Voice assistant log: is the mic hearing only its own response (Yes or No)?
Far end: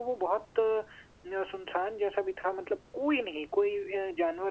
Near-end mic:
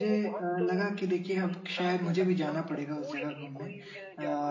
No